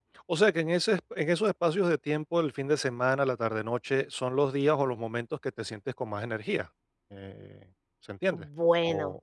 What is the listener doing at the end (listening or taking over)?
taking over